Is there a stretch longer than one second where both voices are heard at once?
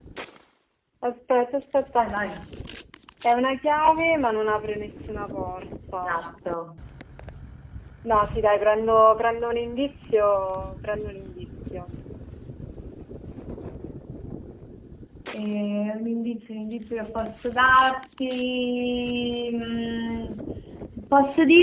No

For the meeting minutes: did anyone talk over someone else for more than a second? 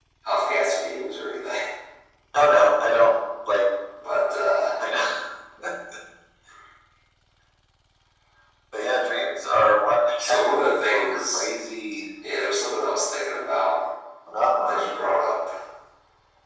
Yes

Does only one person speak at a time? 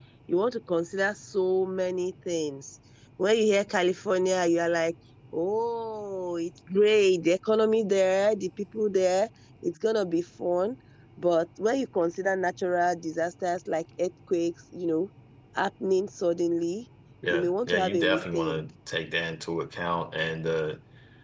No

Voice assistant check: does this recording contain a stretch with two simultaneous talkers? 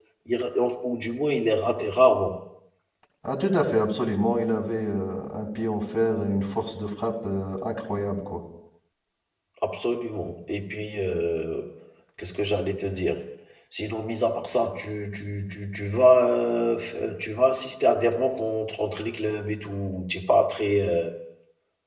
No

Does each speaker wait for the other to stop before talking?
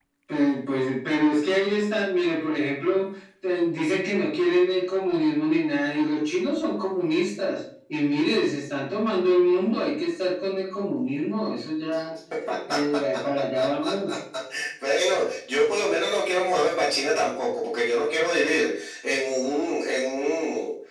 Yes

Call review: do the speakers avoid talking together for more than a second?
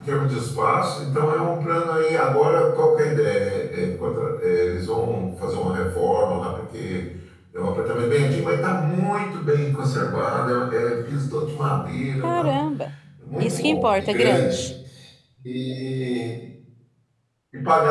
No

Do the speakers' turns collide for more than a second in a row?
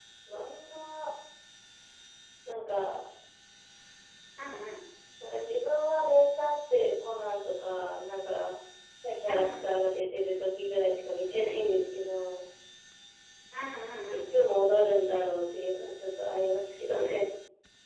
No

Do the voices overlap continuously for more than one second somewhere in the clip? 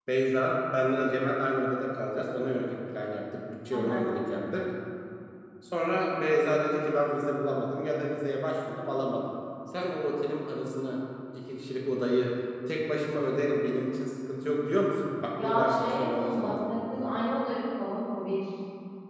Yes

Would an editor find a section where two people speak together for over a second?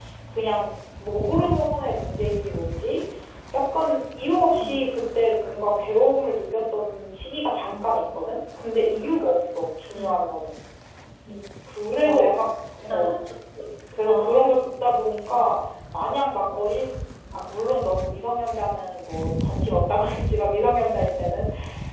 No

